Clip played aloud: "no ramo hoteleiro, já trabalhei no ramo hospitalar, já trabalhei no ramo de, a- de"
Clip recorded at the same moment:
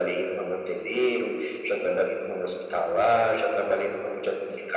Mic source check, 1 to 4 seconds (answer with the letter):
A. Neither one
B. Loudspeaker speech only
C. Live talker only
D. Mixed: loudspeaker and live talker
B